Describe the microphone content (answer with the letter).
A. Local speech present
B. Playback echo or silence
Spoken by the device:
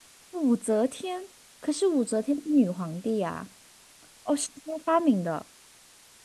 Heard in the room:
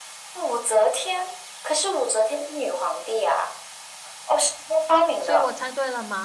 A